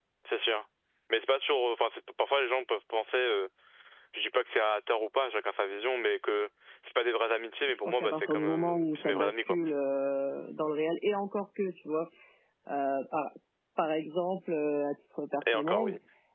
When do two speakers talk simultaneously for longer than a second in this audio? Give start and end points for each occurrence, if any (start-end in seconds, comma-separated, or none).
7.7-9.6